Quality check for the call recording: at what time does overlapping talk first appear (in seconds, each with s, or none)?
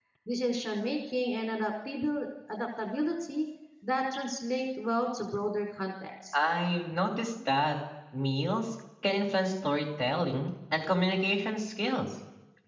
none